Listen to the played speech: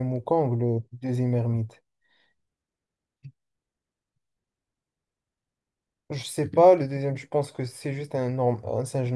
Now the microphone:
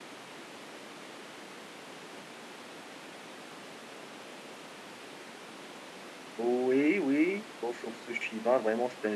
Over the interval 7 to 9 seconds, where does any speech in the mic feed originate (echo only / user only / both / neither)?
user only